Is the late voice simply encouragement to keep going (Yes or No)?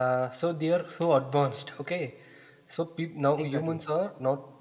Yes